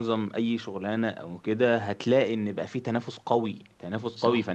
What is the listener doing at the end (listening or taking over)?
listening